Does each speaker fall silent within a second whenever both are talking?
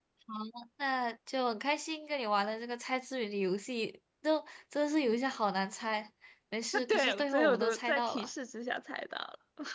No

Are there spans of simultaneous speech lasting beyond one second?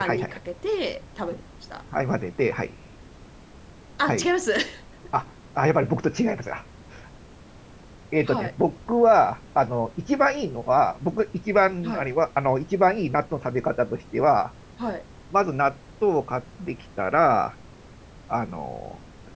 No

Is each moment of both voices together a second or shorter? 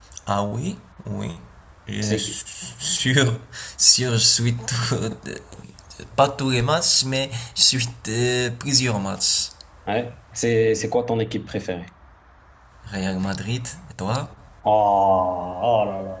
Yes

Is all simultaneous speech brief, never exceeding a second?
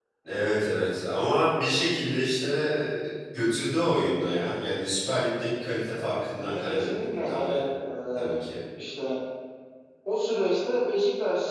No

